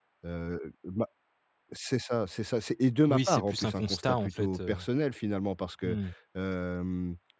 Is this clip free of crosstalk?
No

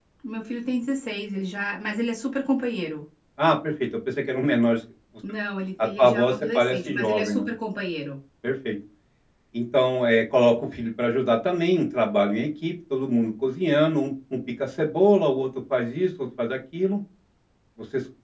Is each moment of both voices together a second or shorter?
No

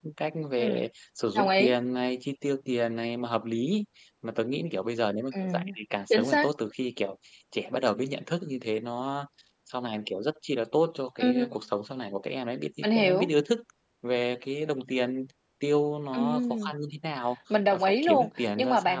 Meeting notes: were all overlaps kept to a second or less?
No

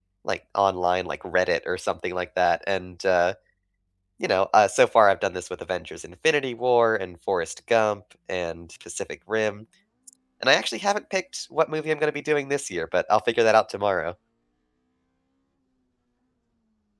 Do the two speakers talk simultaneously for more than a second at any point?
No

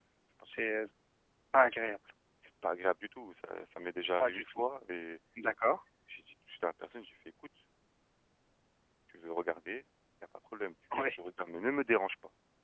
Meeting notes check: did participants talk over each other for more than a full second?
No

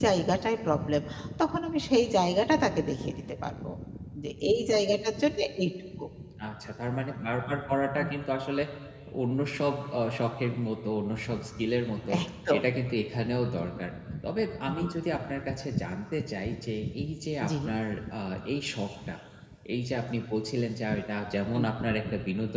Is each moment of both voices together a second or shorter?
Yes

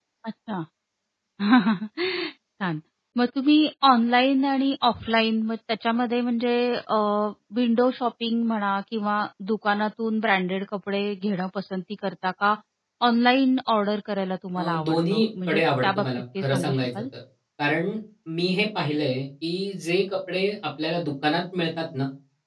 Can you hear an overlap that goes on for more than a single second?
Yes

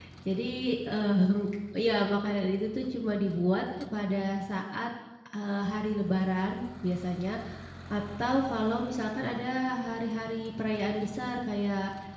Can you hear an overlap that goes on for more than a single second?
No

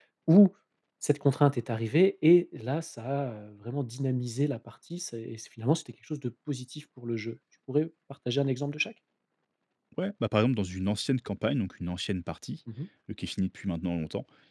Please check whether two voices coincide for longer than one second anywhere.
No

